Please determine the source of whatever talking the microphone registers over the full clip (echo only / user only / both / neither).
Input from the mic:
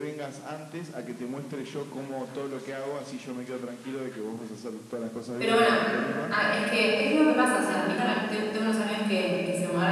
both